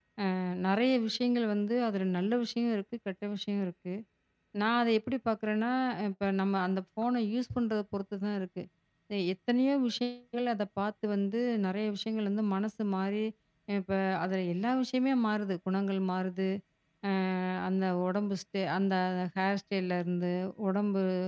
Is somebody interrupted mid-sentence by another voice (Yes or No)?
No